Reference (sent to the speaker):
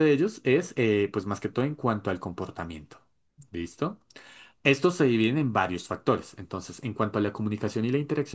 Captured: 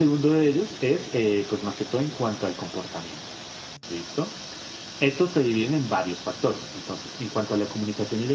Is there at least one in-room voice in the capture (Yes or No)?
No